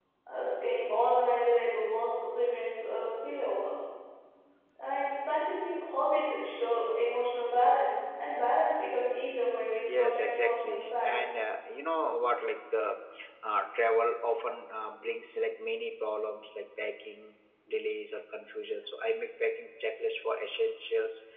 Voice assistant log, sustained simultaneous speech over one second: present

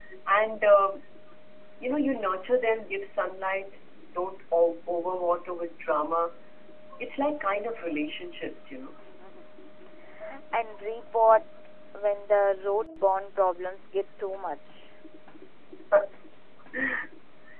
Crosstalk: none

